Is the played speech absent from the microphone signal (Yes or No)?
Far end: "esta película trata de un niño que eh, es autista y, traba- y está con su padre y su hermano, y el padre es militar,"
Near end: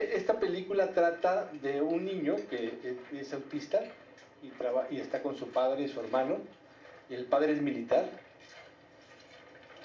No